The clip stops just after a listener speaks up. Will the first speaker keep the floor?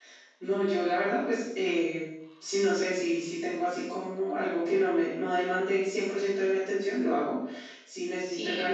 Yes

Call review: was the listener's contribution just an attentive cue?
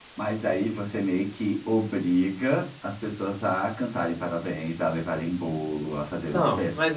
No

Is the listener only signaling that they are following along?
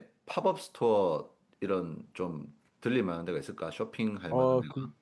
No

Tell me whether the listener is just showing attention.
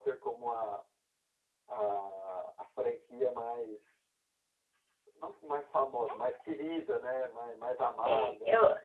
No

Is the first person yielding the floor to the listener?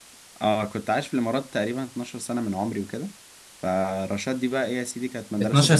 Yes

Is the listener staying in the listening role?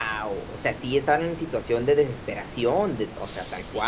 No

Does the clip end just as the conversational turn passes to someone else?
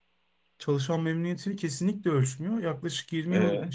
No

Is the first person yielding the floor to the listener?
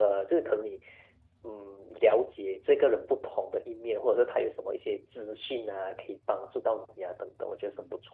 Yes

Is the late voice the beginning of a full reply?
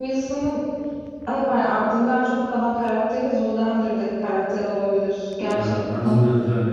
Yes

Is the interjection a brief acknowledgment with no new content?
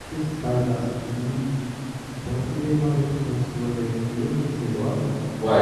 No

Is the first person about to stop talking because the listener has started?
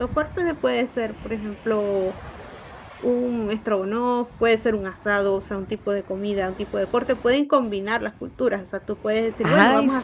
No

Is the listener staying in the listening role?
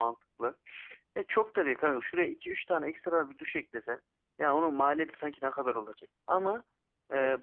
Yes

